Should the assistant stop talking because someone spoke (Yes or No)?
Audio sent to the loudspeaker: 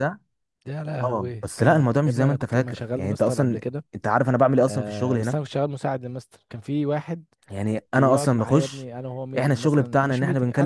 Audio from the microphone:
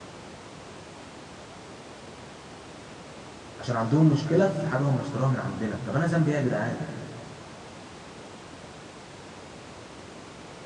Yes